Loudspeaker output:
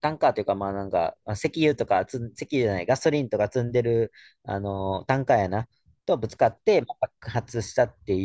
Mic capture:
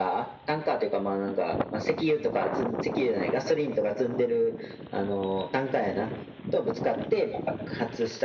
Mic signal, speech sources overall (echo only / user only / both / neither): echo only